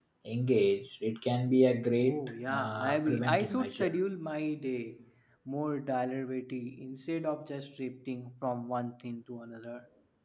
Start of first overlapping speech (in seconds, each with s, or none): 2.0 s